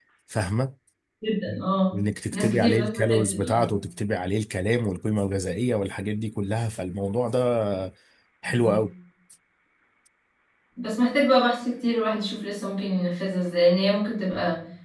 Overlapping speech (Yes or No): Yes